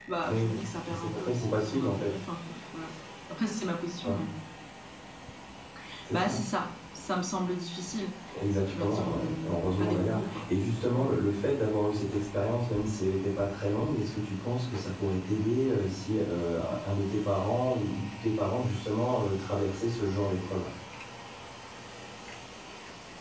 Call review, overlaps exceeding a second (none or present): present